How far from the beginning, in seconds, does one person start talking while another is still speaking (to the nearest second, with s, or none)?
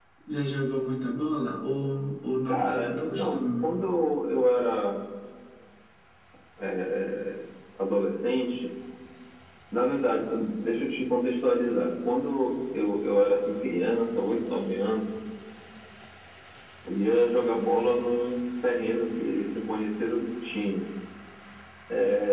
2 s